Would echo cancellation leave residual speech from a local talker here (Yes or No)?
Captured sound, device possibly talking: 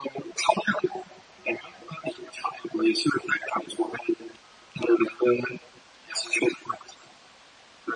No